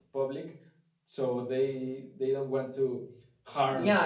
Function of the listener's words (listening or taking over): taking over